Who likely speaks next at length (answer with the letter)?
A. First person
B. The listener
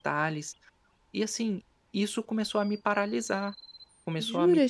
B